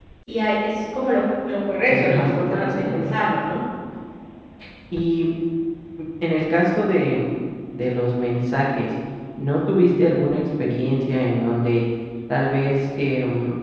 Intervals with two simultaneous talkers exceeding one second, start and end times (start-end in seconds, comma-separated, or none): 1.9-3.1